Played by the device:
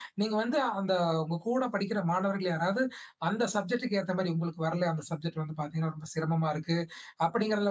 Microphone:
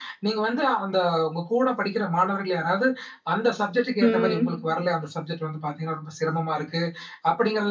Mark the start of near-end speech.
4.0 s

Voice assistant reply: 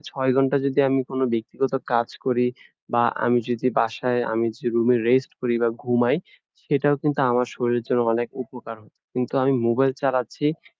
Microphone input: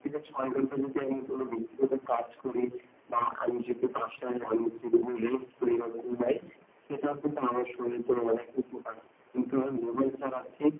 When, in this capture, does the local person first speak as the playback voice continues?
none

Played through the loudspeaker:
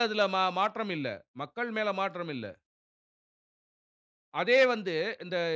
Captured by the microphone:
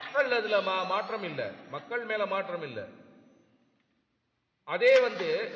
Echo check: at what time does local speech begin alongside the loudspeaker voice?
none

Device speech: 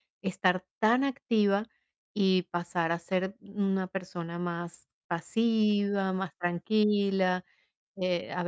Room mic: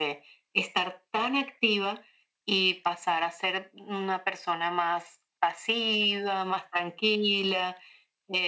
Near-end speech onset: none

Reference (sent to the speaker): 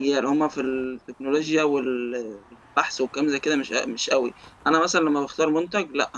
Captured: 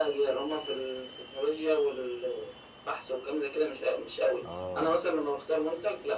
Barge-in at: 4.5 s

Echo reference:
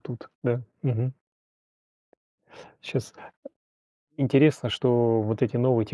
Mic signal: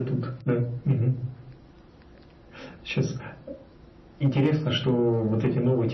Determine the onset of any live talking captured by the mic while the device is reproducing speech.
none

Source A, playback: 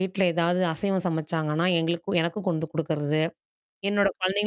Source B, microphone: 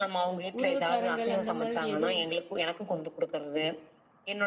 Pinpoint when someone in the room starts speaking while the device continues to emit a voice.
0.6 s

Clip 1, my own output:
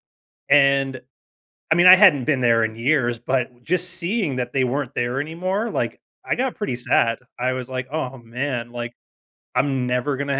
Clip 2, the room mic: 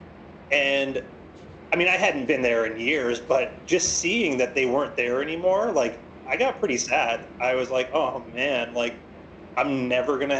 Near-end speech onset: none

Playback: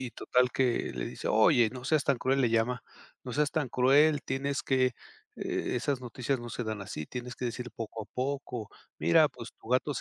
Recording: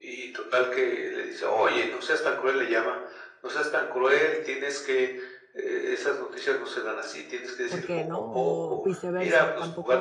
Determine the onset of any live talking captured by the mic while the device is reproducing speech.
7.7 s

